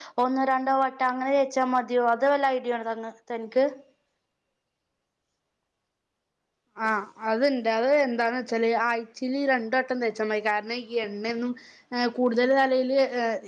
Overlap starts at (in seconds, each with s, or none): none